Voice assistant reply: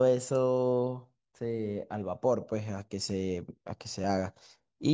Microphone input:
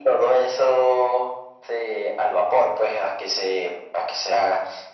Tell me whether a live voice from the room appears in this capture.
No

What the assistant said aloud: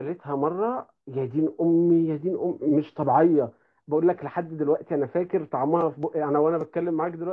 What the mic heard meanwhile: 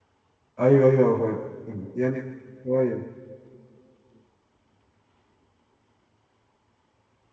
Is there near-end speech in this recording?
Yes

